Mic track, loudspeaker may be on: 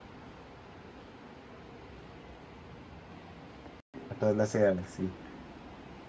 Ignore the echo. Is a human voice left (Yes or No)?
Yes